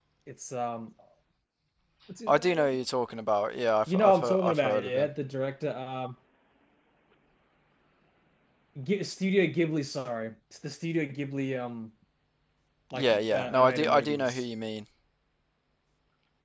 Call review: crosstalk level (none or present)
present